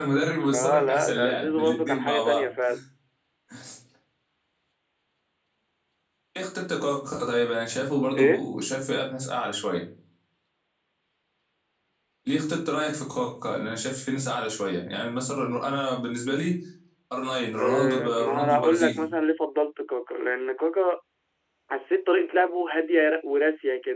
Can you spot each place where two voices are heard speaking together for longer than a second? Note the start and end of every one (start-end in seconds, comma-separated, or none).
0.5-2.4, 17.6-19.0